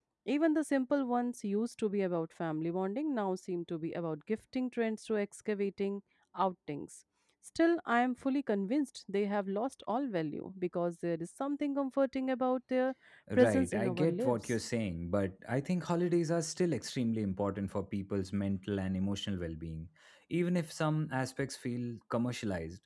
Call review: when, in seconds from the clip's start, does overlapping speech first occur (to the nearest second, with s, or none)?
13 s